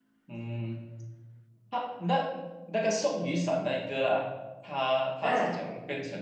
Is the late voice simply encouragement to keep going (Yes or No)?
Yes